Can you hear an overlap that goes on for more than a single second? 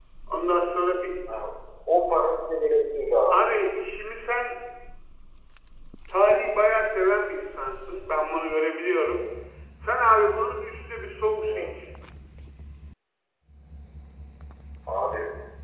No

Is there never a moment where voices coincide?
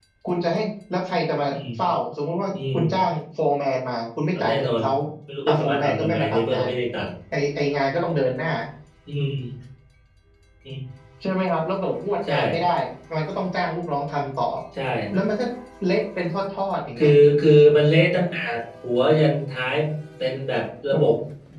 No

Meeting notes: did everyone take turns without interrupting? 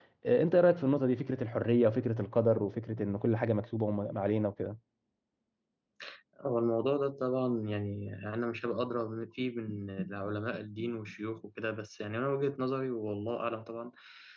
Yes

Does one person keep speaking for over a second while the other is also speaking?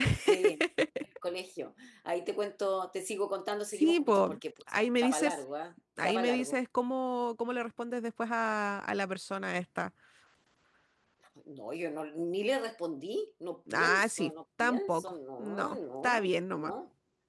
Yes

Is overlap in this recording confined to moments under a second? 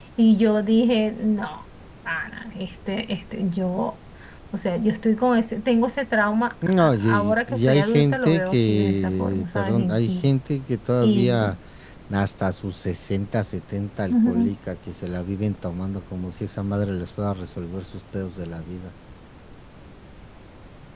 No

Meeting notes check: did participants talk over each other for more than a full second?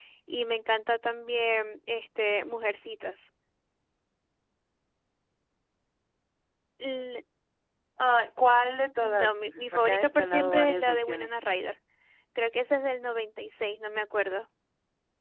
Yes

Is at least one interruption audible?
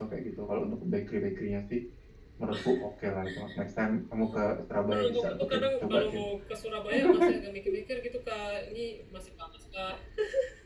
Yes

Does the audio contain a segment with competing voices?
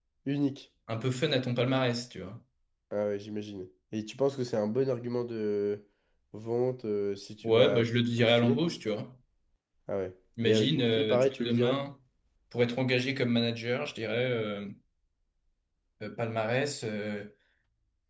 Yes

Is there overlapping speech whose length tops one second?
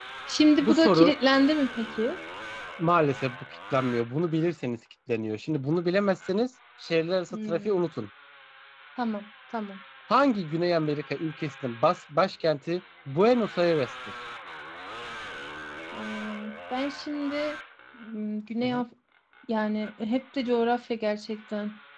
No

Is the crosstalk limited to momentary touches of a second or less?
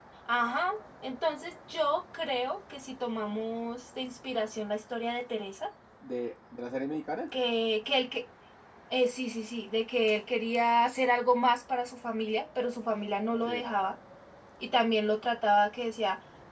Yes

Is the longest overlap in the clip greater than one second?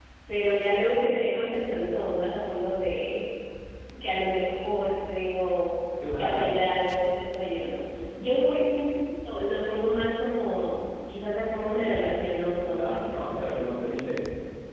Yes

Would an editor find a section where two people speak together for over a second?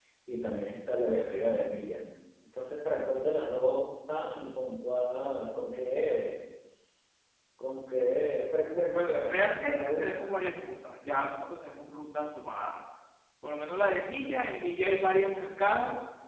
Yes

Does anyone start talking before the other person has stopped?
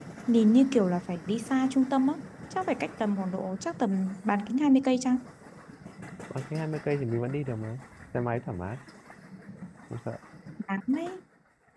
No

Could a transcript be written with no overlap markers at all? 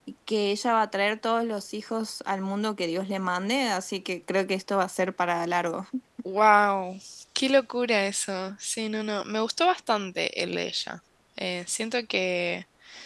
Yes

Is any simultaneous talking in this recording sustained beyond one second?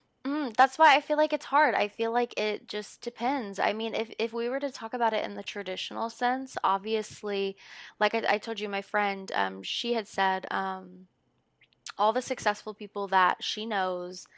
No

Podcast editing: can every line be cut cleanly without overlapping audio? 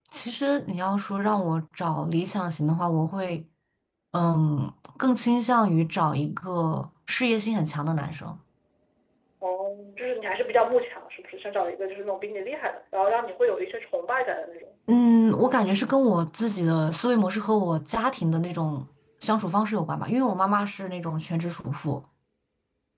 Yes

